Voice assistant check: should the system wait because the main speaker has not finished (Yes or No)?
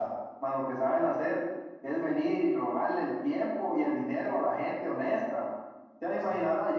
Yes